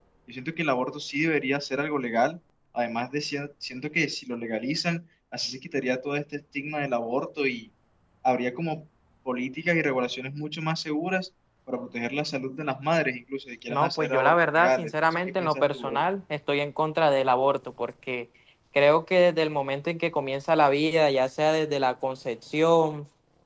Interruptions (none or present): present